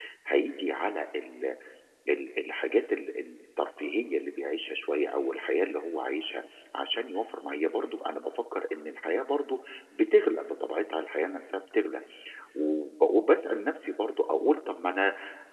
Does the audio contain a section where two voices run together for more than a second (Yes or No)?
No